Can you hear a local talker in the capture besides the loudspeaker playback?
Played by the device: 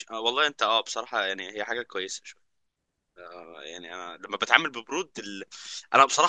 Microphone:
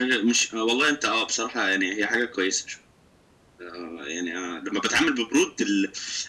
No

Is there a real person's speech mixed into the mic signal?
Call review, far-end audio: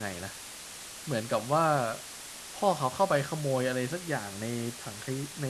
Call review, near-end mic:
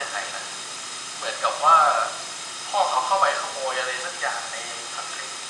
No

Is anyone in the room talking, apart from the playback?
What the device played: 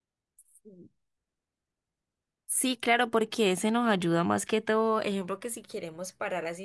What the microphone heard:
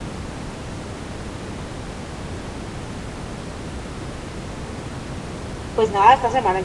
Yes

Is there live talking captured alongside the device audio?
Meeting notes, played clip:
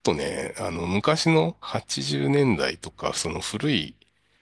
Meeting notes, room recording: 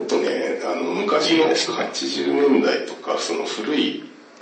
Yes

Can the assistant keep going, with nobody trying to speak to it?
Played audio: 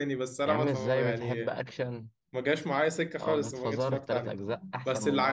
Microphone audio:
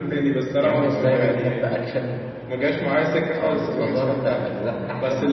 Yes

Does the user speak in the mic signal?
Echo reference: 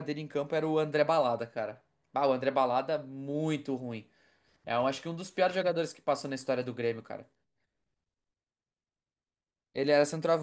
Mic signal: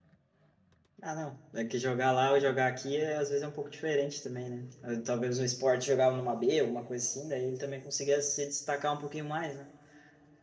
Yes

